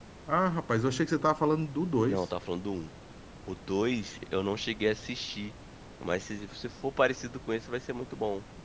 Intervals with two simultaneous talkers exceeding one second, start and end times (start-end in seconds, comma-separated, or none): none